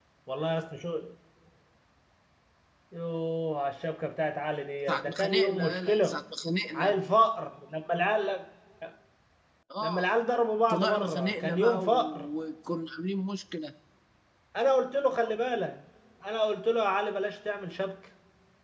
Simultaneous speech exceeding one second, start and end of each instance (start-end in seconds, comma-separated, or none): 4.9-6.2, 10.7-12.3